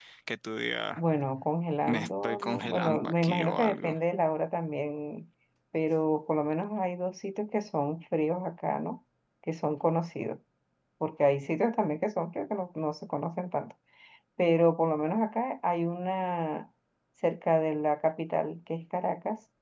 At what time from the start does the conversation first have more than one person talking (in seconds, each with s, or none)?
1.9 s